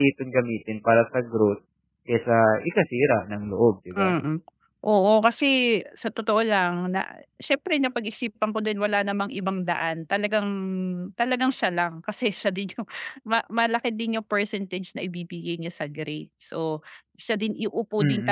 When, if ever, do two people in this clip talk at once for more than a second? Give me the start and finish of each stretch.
none

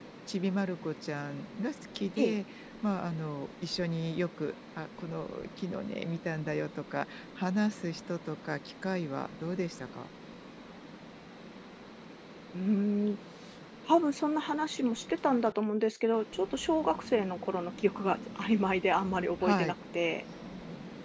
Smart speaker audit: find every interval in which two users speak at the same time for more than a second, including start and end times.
none

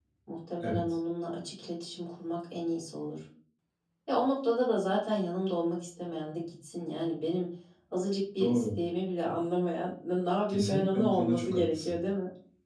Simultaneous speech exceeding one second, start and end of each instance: 10.5-12.0

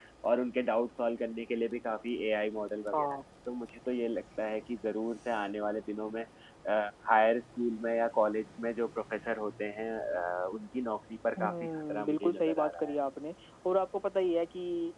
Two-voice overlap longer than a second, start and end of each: 11.4-13.0

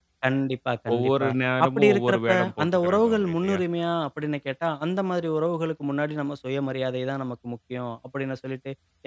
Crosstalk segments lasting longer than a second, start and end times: 1.6-3.6

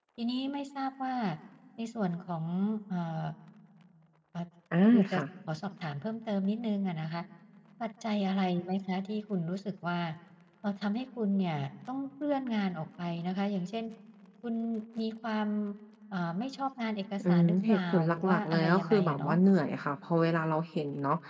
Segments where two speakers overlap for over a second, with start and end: 17.2-19.4

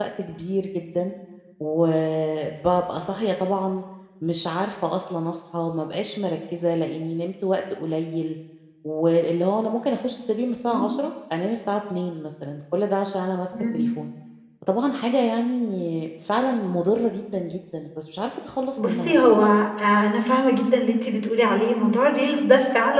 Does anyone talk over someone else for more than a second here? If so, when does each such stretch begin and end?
none

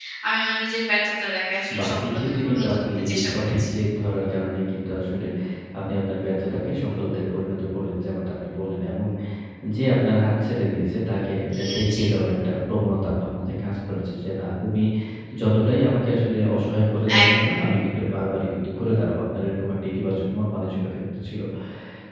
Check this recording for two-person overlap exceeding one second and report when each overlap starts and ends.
1.8-3.7

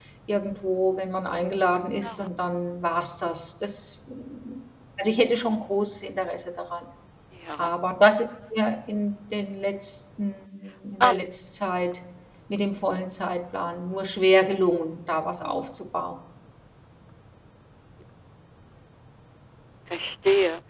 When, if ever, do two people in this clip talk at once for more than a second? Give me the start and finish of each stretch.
none

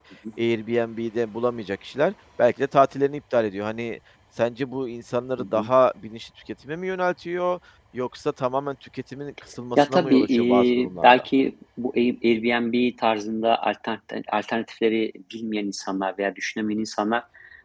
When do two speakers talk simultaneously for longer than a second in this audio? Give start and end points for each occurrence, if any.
9.8-11.2

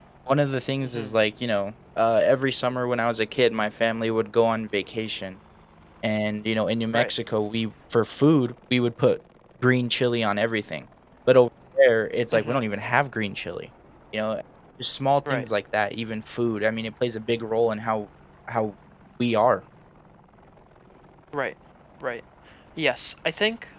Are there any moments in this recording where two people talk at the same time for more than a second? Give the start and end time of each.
none

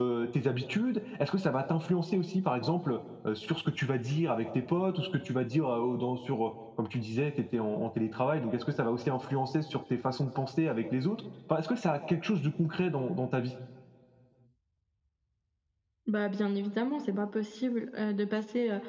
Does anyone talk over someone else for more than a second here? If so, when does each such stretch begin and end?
none

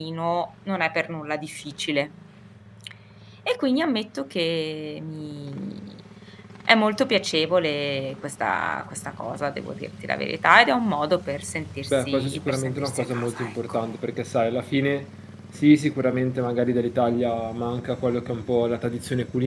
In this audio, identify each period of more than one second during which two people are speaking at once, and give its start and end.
11.9-13.8

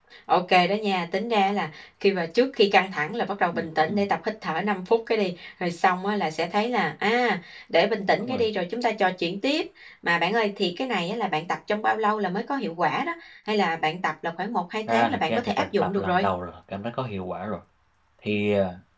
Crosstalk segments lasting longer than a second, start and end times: 14.9-16.2

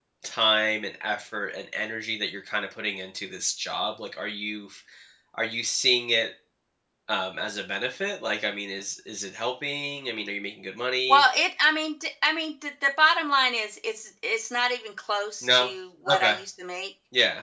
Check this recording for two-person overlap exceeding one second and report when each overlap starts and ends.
none

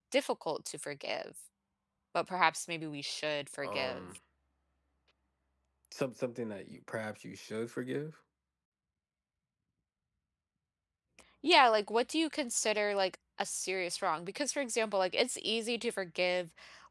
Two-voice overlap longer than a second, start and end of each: none

